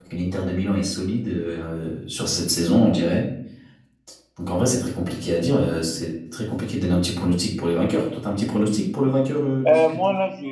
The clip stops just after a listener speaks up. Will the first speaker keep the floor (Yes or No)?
No